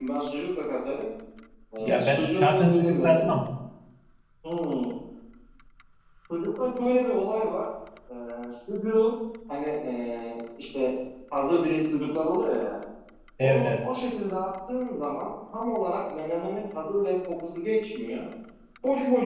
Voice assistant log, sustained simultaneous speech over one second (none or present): present